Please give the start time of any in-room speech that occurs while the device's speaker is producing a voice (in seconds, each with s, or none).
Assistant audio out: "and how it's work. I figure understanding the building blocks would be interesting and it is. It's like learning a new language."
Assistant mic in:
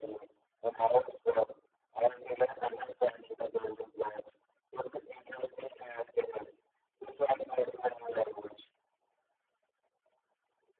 none